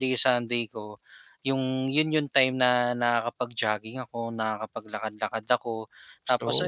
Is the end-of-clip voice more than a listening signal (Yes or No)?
No